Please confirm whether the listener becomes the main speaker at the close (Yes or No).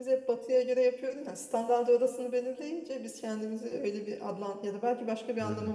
No